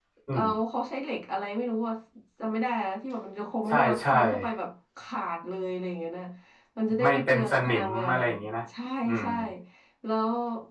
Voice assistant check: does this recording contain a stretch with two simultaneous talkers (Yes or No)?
Yes